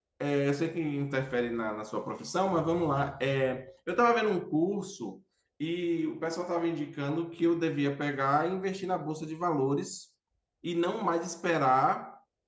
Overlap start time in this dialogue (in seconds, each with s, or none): none